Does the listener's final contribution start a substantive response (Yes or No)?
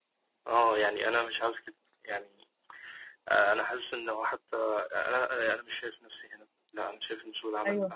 Yes